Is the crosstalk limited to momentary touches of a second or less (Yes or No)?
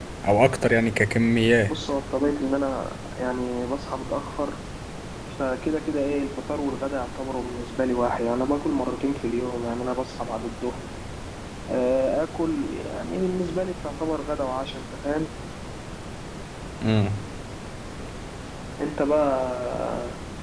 Yes